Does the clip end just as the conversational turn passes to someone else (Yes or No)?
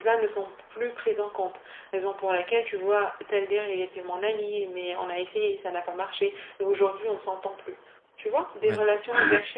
No